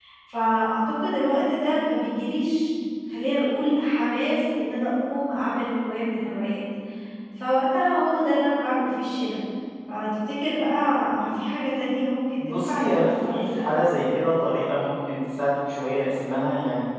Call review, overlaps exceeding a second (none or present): present